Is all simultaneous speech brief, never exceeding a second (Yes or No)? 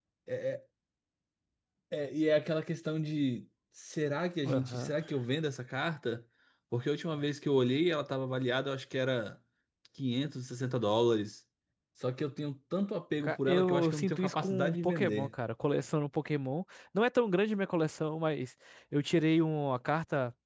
No